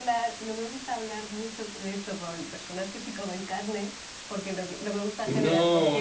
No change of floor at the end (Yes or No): No